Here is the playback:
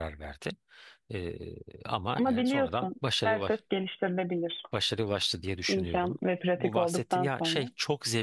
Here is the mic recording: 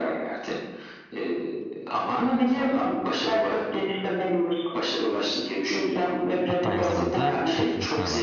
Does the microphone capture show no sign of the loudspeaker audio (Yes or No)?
No